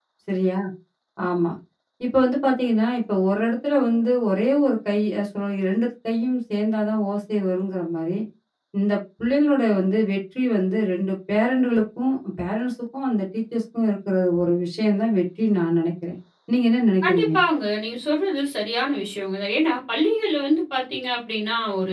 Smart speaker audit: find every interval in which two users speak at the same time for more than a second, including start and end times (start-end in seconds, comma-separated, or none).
none